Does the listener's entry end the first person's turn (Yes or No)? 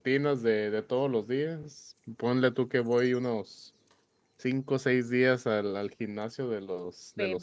Yes